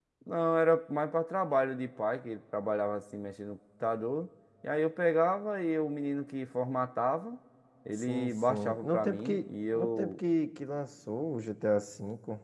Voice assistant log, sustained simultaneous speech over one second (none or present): present